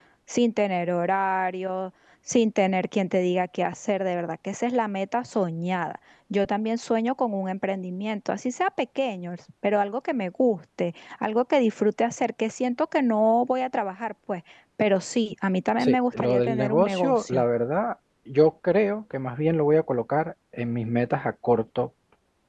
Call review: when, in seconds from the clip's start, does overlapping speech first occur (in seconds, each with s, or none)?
15.8 s